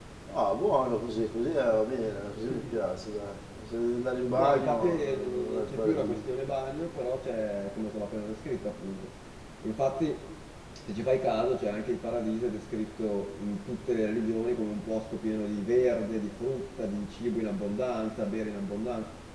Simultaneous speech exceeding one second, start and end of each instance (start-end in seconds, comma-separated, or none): 4.3-6.2